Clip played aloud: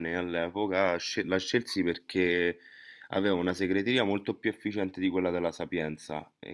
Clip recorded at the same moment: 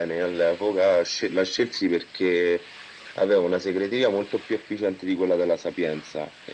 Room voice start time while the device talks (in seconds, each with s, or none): none